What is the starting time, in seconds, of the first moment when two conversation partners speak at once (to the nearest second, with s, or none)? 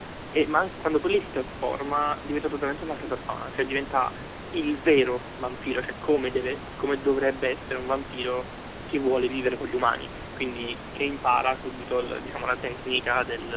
none